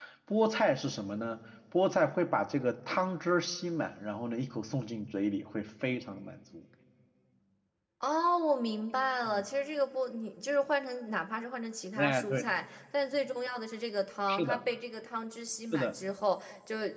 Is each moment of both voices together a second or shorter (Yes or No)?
Yes